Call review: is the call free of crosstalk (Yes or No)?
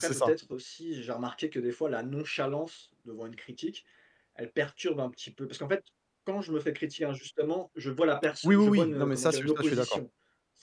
No